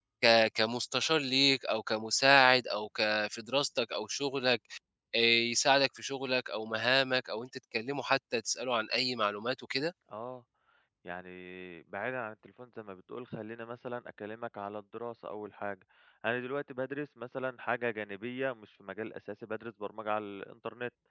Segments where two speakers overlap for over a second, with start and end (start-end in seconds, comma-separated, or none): none